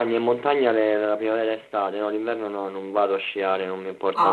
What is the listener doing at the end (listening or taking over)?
taking over